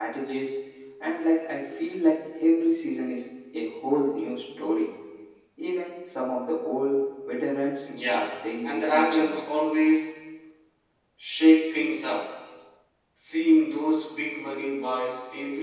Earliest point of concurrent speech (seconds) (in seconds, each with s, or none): 8.1 s